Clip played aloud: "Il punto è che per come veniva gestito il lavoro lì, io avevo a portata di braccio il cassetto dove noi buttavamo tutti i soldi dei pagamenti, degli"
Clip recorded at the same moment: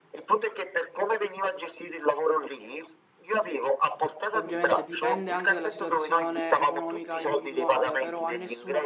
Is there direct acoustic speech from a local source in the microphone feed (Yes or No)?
Yes